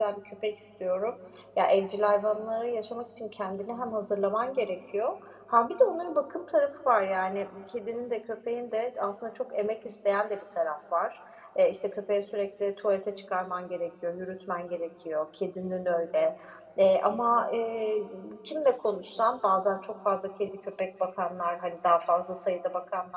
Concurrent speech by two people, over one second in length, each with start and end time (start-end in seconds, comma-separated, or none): none